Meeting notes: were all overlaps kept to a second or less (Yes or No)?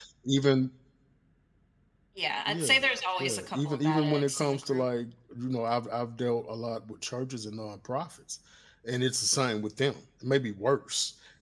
No